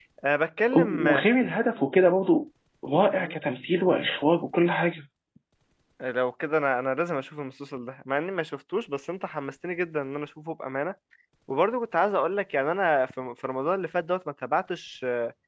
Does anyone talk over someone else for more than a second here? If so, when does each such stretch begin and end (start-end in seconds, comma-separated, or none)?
none